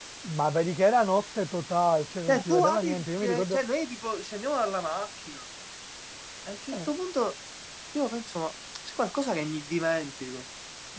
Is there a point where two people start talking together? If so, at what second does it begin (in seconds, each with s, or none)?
2.3 s